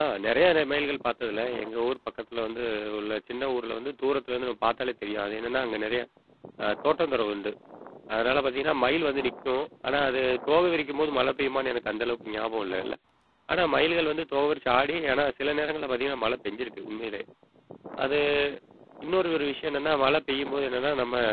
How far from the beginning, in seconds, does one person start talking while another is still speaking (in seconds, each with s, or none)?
none